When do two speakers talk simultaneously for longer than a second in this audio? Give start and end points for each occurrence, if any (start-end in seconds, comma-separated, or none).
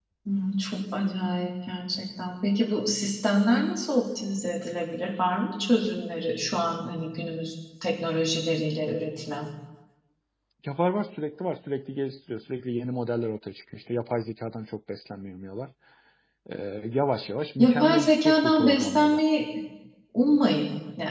17.6-19.2